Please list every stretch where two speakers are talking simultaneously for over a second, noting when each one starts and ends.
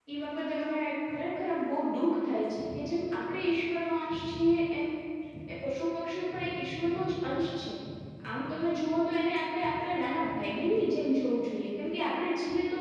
none

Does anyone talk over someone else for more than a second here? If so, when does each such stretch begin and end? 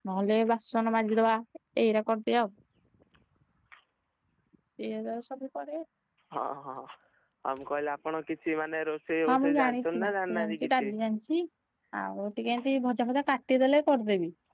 9.3-10.9

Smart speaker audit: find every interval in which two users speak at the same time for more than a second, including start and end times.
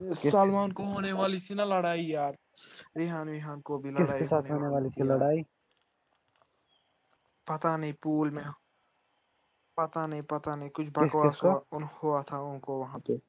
4.0-5.3

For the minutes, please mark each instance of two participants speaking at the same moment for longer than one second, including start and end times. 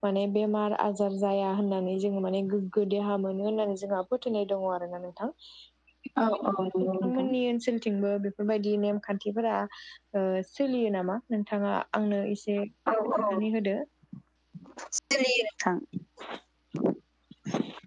none

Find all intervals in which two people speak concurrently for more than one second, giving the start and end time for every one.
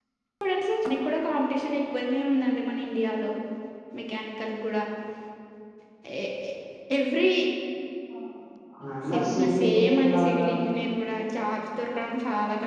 9.1-10.5

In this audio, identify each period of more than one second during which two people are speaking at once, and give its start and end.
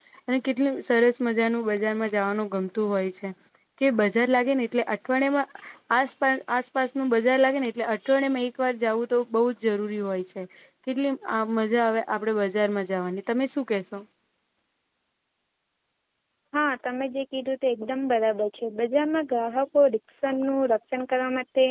none

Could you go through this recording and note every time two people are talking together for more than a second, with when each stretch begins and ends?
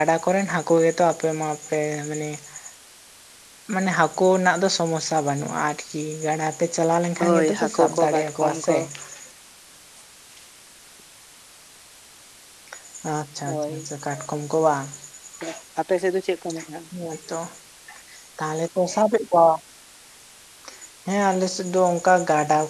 7.2-8.8

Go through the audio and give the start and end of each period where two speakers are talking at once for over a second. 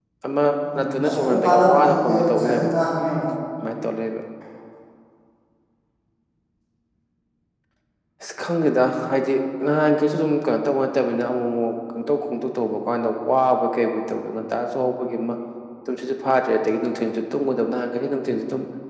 0.8-2.7

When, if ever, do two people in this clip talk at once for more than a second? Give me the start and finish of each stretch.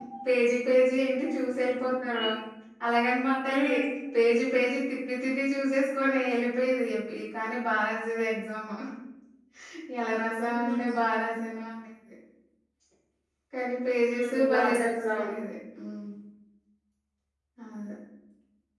14.1-15.3

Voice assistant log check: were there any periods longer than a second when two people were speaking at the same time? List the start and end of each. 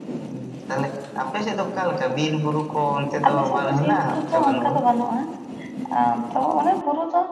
3.3-4.7

